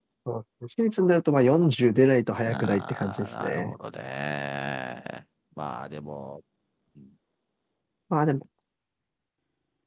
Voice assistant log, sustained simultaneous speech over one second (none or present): present